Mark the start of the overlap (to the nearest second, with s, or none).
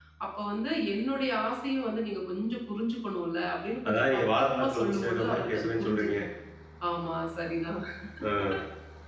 4 s